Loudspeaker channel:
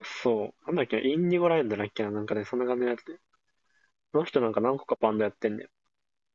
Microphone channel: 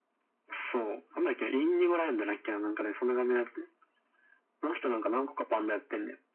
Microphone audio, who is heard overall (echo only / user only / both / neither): echo only